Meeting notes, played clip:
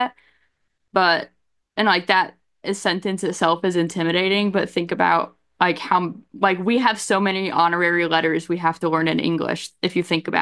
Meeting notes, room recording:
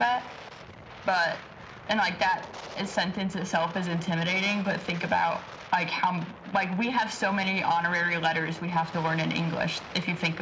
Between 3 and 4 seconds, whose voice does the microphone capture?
echo only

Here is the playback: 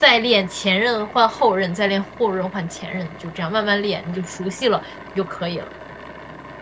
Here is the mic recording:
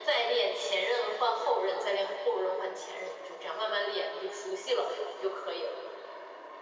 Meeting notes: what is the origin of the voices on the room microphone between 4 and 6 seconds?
echo only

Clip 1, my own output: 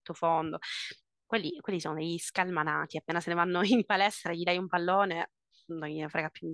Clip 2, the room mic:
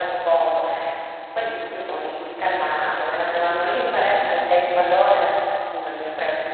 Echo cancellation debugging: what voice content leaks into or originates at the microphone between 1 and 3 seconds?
echo only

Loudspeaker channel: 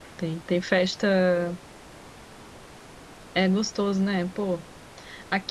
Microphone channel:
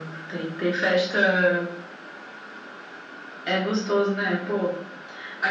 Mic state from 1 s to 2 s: echo only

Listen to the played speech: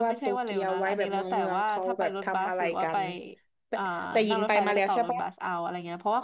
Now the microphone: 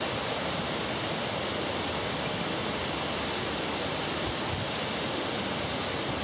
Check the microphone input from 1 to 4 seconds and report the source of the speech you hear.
neither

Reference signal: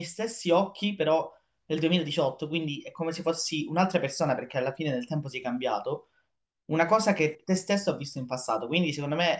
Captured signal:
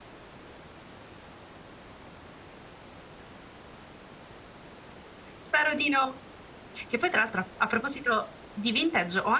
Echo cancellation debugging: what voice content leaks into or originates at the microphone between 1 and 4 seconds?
neither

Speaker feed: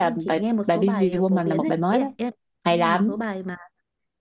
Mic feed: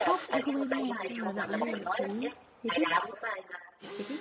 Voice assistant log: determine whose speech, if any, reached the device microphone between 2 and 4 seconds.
both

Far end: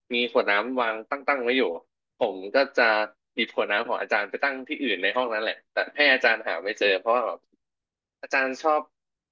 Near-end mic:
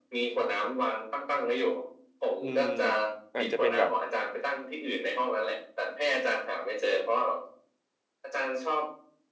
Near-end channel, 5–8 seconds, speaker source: echo only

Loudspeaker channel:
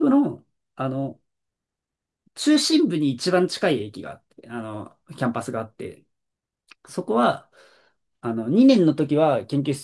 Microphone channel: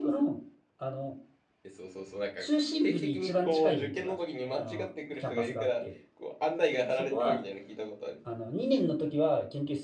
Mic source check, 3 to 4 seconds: both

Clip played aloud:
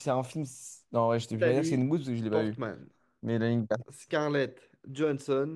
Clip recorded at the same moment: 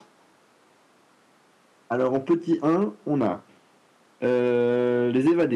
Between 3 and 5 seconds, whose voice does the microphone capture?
user only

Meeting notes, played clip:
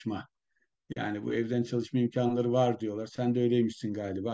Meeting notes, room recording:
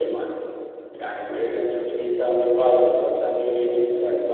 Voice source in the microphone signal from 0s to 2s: echo only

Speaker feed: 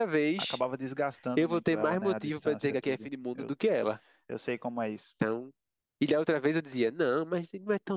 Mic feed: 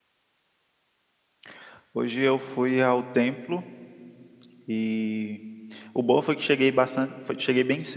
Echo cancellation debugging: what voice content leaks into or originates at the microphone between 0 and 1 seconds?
neither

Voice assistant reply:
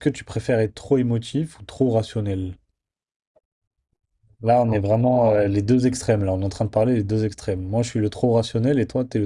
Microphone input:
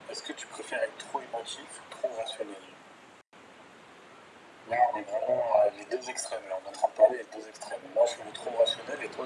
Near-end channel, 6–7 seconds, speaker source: echo only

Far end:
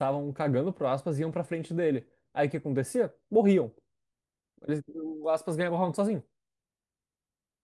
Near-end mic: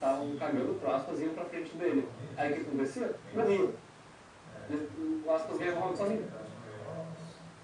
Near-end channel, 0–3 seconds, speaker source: both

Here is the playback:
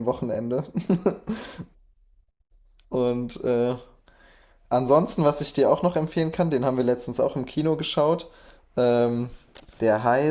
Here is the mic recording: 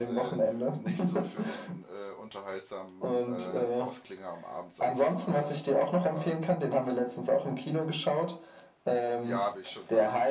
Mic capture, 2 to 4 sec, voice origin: both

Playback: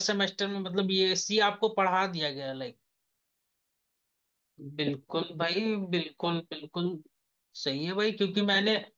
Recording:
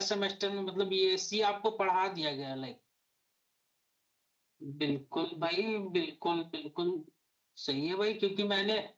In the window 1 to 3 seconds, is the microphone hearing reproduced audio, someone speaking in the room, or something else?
echo only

